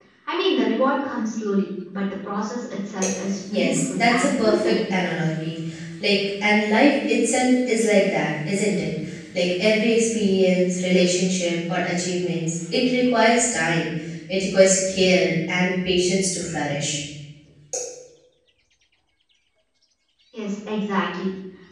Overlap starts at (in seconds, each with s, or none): 3.5 s